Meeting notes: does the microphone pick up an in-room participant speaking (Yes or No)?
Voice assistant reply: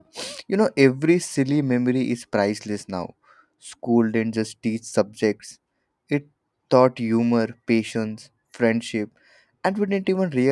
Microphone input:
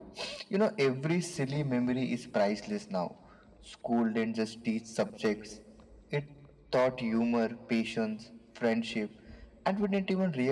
No